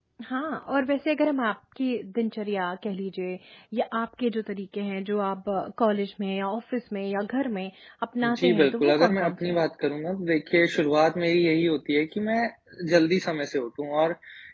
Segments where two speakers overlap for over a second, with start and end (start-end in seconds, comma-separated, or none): 8.2-9.6